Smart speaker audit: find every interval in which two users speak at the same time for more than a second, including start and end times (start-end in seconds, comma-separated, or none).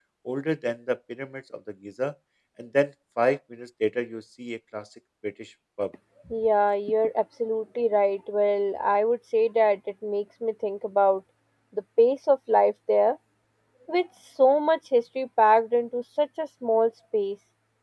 none